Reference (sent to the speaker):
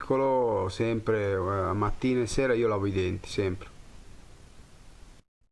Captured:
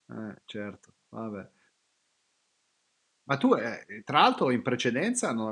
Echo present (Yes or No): No